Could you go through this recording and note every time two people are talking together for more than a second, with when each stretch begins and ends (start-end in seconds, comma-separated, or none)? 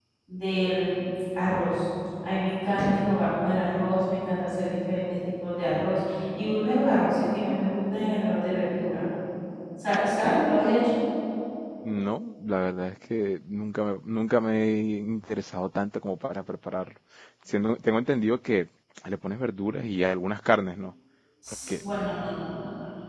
none